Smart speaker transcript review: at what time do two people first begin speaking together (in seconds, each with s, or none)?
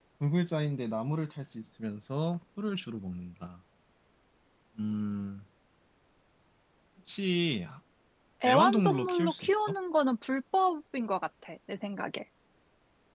8.5 s